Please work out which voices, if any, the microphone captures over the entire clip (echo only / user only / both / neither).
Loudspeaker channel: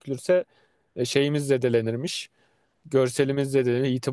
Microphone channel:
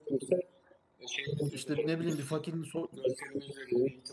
both